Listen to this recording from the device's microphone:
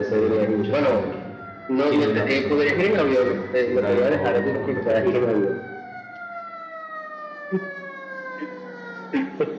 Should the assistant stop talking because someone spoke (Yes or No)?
Yes